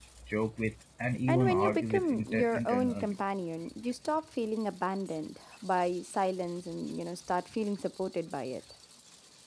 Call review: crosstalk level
present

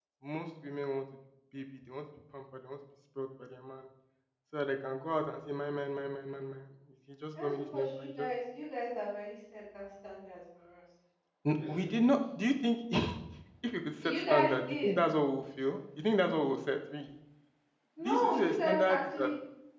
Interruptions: present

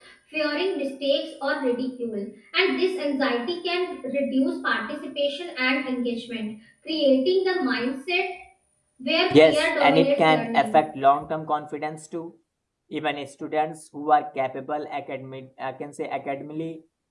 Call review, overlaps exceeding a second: present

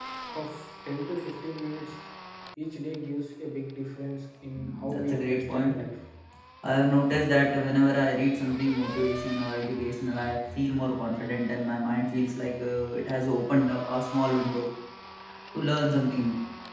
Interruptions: present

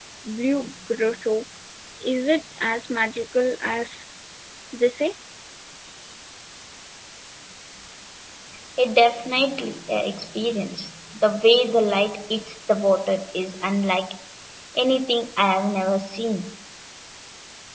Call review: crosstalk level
none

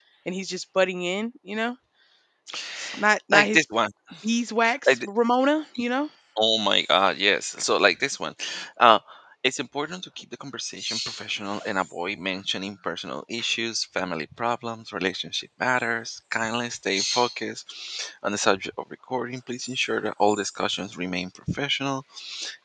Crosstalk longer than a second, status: none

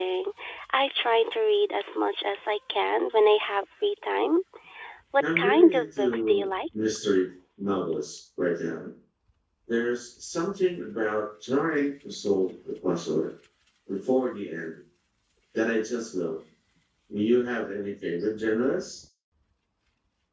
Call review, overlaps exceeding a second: present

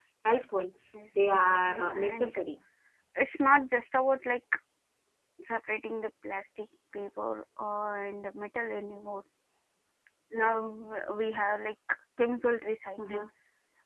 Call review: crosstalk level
present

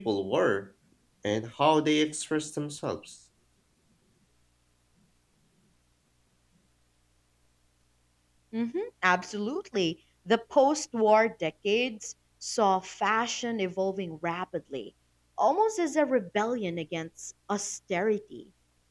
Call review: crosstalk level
none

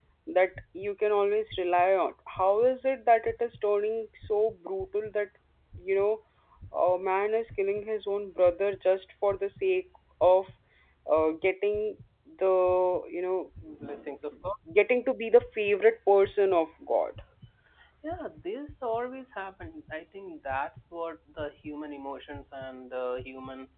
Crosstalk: none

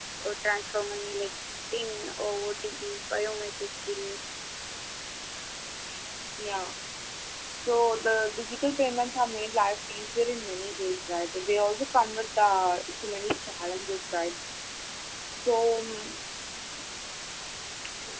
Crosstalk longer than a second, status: none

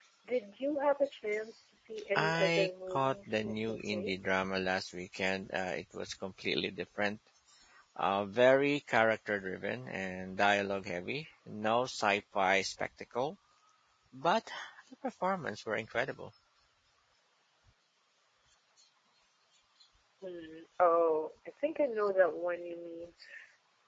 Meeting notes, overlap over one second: present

